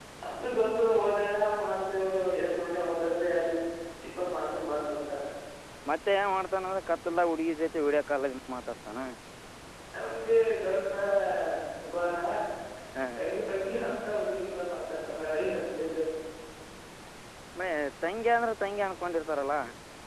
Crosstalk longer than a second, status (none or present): none